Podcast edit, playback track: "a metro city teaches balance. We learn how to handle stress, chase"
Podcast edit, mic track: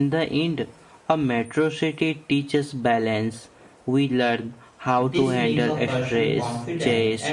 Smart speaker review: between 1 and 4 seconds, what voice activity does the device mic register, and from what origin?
echo only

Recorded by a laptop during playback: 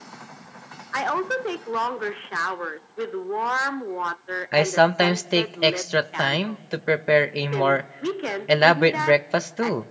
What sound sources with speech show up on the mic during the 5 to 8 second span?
both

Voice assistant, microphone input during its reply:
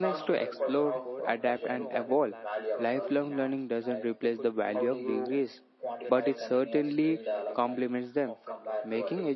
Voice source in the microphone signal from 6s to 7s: both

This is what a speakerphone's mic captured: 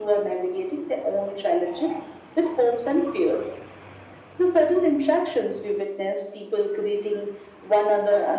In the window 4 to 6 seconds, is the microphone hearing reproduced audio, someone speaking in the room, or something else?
echo only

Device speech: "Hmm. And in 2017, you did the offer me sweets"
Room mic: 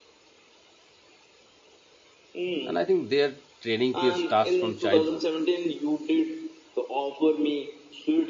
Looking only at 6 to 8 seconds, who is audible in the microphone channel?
echo only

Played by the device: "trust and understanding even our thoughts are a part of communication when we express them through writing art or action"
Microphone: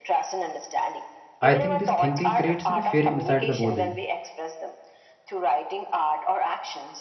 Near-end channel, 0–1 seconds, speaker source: echo only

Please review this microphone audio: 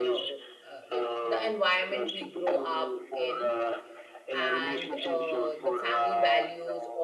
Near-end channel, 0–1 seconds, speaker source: both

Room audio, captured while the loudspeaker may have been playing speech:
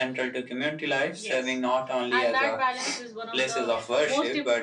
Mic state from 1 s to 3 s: both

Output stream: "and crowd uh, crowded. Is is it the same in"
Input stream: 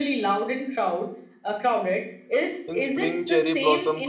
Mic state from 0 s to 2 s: echo only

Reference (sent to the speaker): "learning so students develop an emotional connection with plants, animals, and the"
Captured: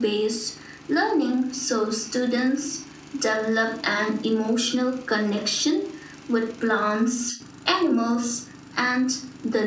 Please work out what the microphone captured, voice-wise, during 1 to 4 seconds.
echo only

